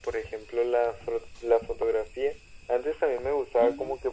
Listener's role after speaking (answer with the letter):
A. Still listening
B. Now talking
A